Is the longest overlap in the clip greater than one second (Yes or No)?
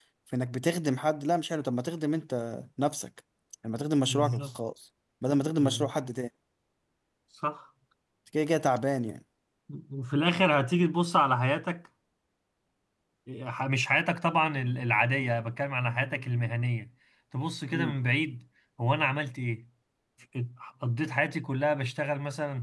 No